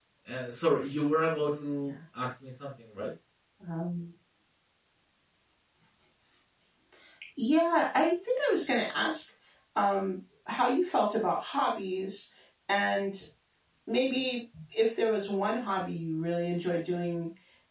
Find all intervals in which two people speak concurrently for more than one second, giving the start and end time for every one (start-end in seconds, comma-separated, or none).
none